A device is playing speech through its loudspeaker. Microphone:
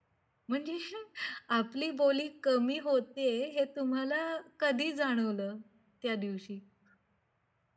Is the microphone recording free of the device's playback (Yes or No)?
Yes